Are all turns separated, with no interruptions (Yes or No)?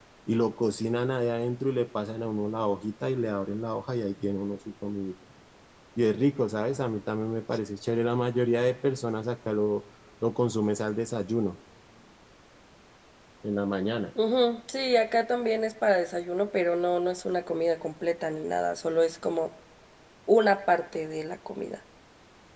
Yes